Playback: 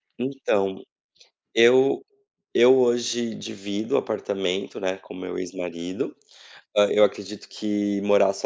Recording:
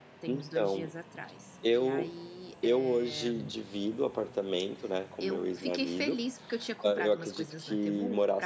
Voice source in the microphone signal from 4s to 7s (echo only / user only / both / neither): both